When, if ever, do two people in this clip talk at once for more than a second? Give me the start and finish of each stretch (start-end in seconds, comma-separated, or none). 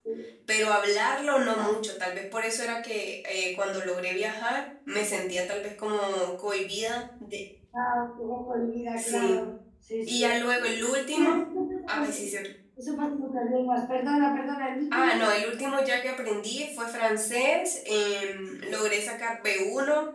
none